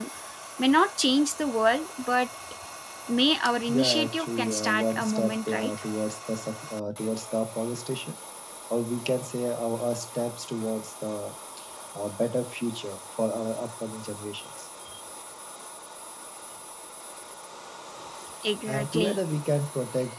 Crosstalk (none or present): present